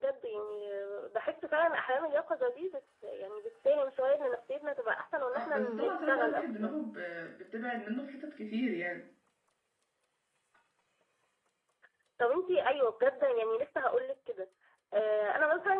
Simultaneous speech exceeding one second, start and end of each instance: 5.3-6.7

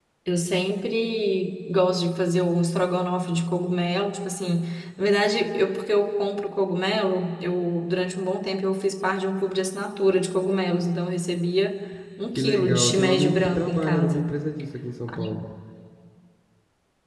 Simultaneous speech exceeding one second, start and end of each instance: 12.3-14.3

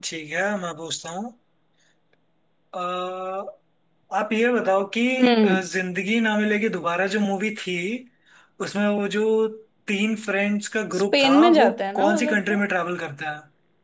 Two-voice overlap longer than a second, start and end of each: 11.0-12.6

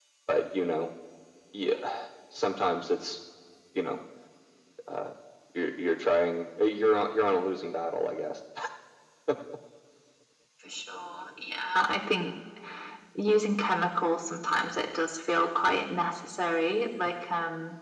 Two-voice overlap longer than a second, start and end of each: none

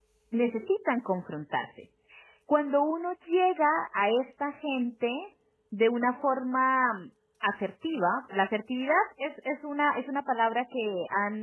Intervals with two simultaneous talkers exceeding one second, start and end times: none

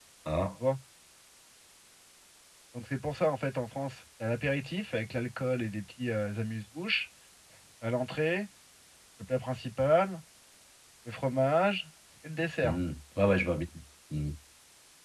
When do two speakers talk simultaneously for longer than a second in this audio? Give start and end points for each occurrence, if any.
none

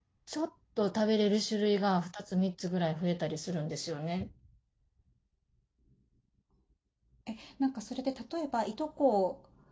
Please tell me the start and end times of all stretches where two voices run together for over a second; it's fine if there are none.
none

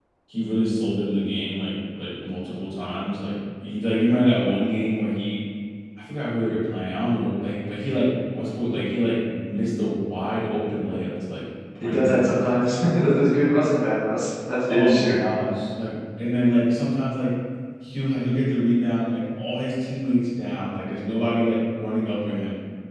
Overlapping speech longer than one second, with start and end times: none

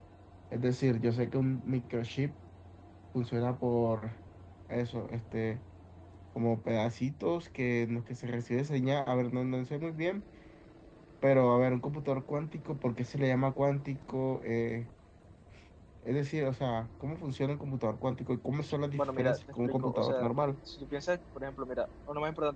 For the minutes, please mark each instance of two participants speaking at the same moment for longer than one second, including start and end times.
19.0-20.3

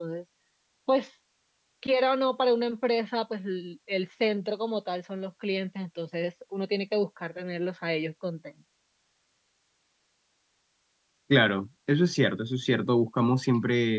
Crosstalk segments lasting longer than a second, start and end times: none

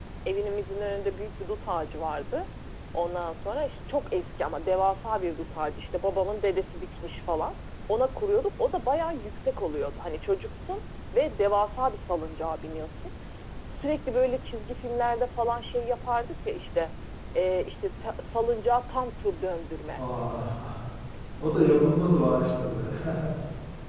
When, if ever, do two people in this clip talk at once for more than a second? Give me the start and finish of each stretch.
none

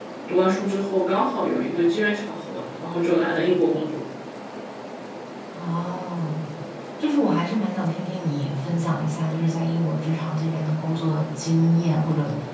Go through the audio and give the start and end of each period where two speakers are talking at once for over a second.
none

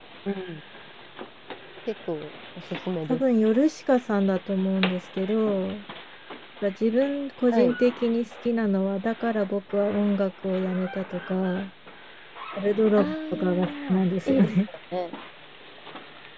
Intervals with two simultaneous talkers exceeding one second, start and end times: 13.0-14.5

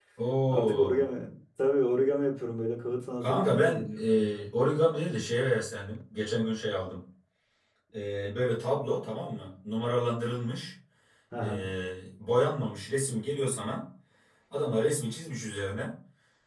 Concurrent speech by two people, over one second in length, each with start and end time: 3.2-4.5

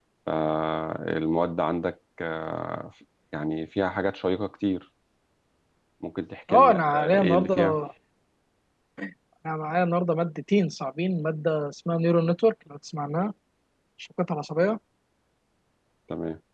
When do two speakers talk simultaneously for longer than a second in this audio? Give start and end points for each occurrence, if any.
6.5-7.8

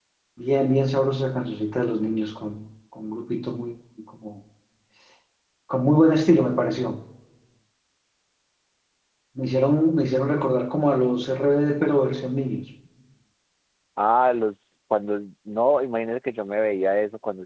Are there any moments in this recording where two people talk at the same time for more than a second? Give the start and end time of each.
none

